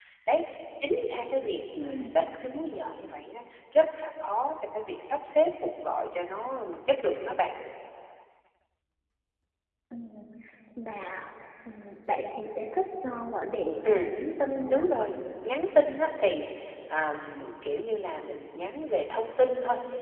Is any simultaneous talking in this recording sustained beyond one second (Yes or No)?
No